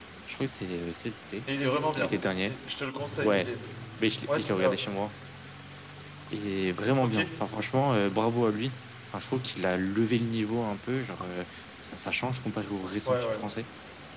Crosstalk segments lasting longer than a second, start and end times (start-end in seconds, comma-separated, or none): none